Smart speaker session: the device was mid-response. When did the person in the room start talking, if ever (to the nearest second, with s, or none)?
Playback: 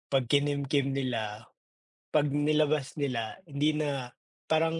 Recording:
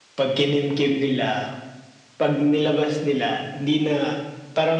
none